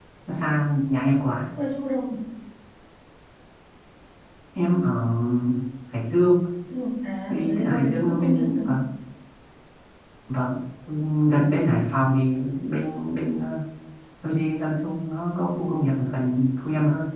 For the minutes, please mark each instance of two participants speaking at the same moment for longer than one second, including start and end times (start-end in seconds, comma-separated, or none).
7.3-8.8